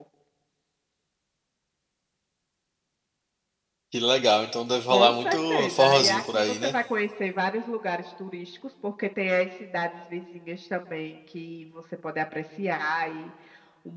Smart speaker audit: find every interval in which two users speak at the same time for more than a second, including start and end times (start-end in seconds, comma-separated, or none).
4.9-6.7